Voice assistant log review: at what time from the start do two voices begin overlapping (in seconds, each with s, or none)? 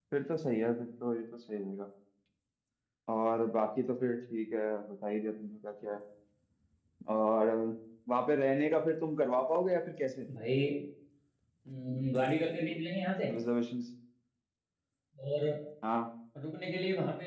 none